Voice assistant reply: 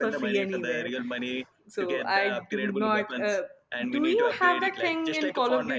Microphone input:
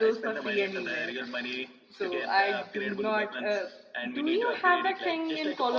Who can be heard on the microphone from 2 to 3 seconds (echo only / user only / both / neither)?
echo only